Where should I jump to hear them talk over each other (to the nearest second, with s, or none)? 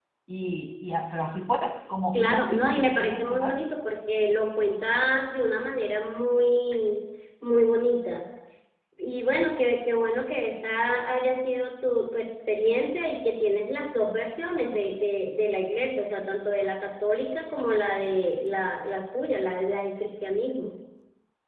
2 s